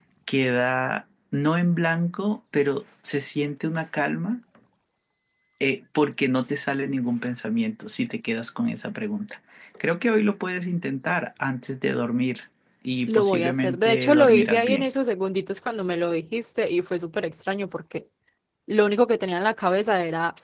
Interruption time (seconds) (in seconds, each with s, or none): 13.1 s